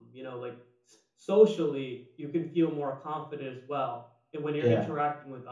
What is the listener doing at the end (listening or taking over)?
listening